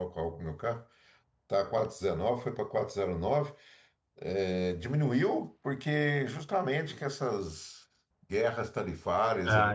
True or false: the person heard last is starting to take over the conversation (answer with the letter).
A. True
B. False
B